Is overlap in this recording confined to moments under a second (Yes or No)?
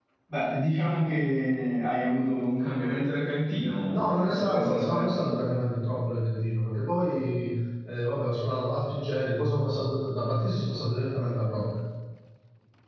No